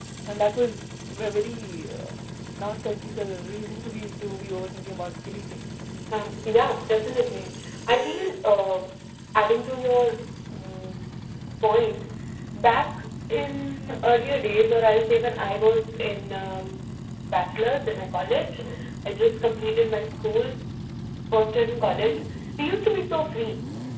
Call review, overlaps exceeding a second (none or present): none